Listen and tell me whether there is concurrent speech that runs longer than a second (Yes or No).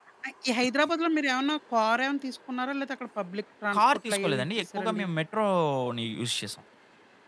Yes